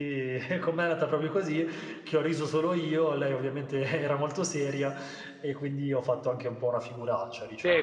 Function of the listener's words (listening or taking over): taking over